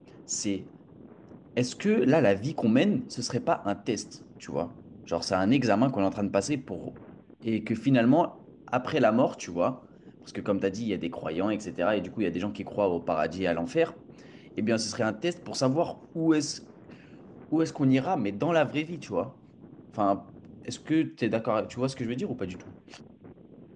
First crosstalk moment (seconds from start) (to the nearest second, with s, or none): none